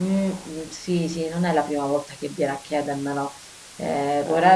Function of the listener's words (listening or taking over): listening